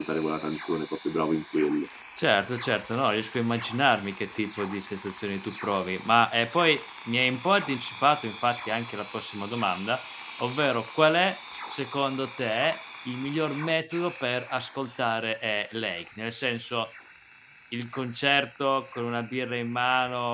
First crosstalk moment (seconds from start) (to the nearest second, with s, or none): none